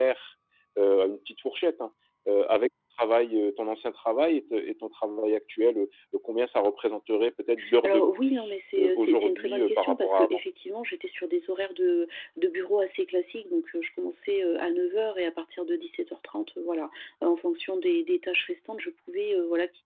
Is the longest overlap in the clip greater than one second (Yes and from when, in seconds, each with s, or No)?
Yes, from 7.8 s